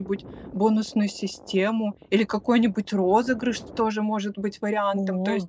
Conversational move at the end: listening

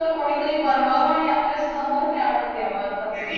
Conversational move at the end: taking over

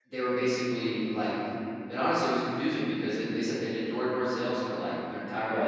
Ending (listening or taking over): listening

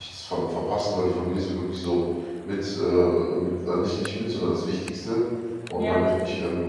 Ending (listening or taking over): listening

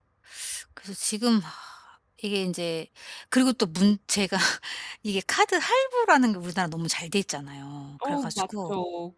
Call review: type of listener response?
taking over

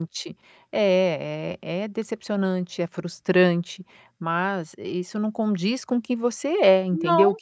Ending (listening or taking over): listening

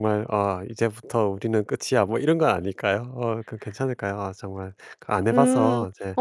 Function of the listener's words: taking over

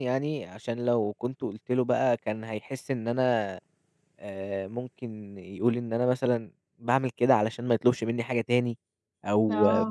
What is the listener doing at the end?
listening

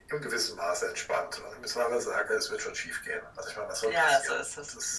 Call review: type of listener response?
taking over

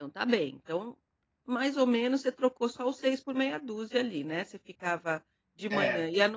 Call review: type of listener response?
listening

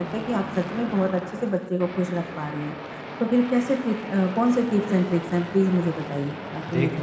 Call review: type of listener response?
taking over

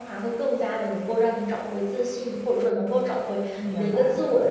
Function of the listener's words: listening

